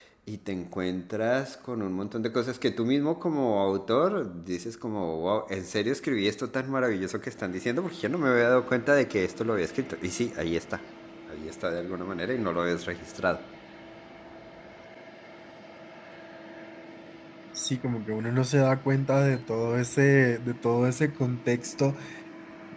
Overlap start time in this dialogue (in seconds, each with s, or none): none